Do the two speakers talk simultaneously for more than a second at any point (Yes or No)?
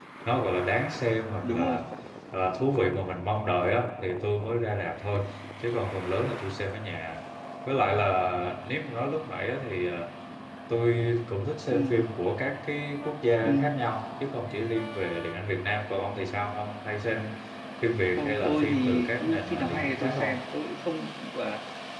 Yes